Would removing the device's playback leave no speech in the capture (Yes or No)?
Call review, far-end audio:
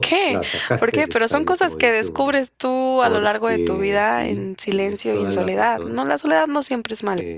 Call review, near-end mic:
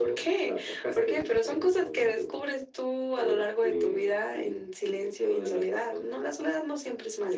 Yes